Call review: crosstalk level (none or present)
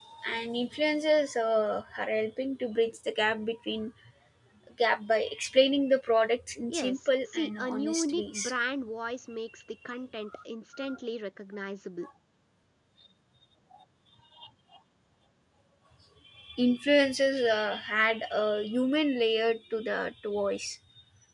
present